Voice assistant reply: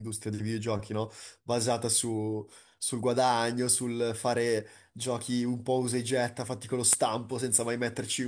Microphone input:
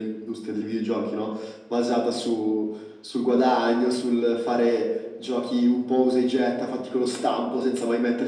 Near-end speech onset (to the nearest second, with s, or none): none